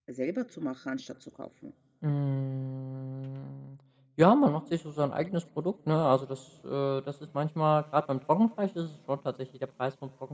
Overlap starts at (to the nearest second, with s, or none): none